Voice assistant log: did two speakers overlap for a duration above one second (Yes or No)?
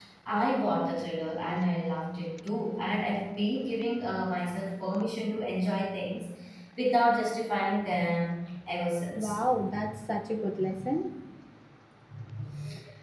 No